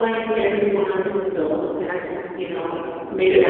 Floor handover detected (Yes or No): No